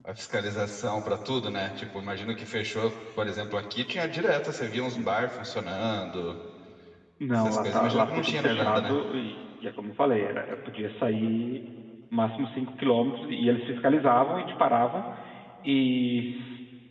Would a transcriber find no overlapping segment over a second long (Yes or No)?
No